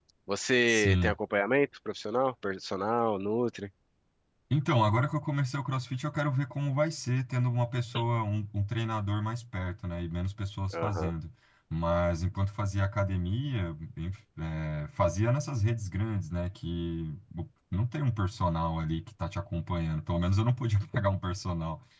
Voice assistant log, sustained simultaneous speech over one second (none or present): none